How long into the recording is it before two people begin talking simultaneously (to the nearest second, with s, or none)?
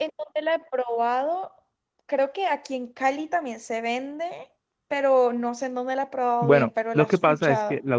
6 s